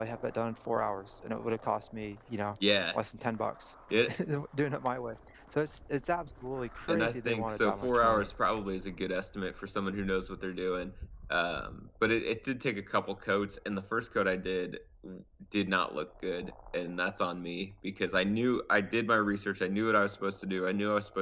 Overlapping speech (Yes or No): Yes